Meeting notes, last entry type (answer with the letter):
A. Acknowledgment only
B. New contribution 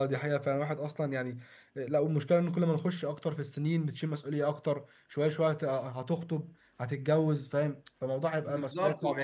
B